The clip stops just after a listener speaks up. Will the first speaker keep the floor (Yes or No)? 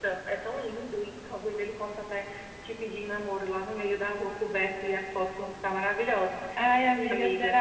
No